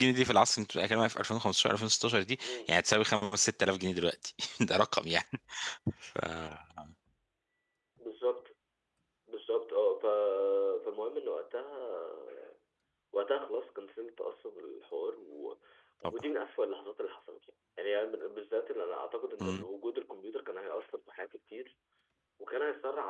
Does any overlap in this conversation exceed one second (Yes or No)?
No